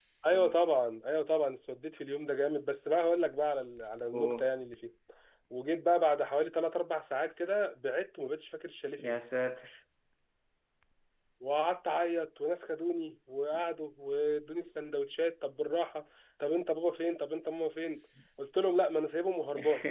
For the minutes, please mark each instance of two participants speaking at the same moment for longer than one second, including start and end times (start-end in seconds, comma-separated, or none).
none